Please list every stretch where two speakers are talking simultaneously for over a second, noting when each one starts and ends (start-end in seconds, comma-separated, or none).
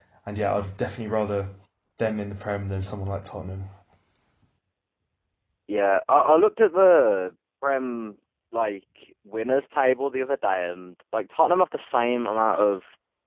none